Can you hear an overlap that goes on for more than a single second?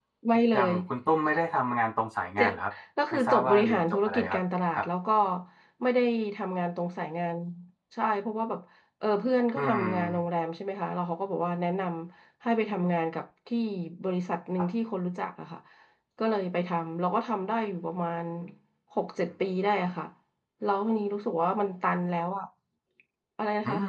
Yes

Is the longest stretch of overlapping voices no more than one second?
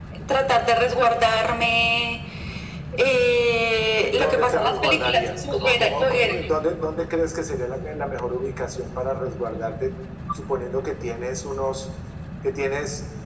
No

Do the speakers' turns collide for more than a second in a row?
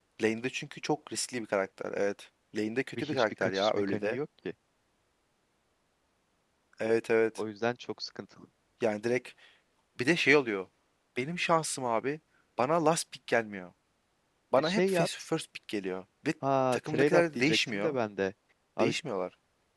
Yes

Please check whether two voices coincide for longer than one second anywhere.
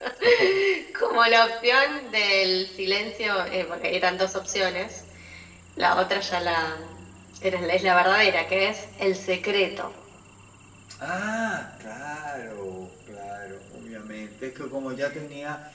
No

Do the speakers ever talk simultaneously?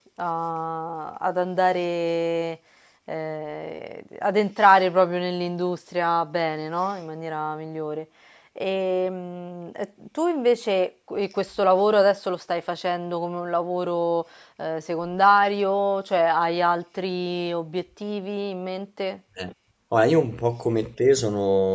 No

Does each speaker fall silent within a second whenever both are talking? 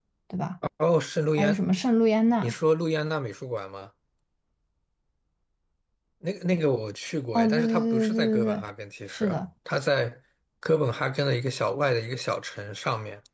No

